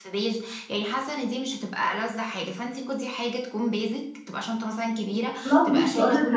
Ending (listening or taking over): taking over